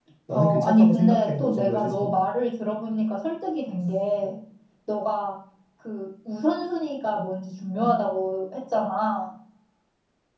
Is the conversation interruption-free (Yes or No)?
No